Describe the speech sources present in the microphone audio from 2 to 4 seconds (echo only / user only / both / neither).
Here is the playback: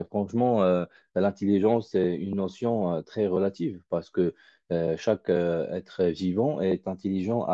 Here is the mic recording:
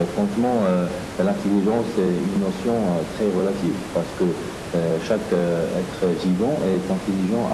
echo only